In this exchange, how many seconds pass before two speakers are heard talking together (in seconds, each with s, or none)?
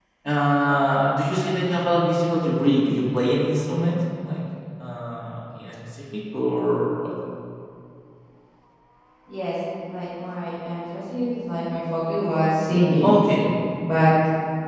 none